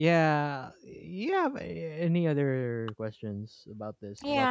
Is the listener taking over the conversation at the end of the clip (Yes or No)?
Yes